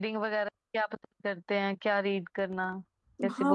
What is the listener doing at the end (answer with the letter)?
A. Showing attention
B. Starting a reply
B